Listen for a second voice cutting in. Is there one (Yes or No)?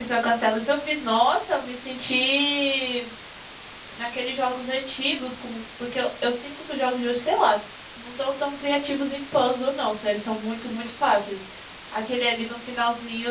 No